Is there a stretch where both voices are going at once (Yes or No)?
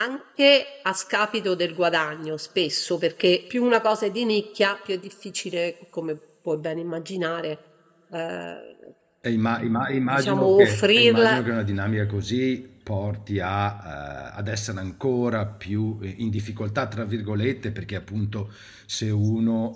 Yes